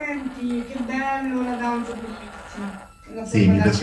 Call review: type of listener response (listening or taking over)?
taking over